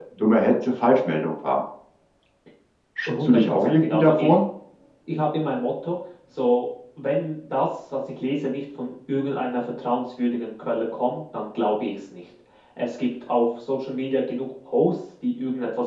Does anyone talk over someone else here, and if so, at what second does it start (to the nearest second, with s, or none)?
3 s